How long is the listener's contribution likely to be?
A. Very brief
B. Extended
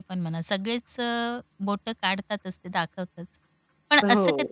A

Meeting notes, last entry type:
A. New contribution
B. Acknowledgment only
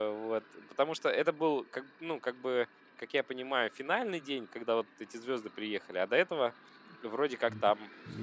A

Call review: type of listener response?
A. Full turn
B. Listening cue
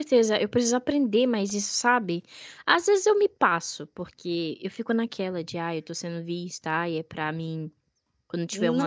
A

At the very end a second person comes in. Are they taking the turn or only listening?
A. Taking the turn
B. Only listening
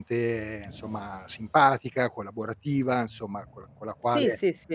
A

